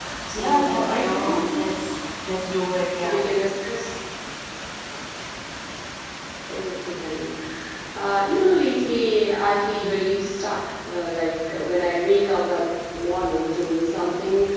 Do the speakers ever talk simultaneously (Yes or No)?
Yes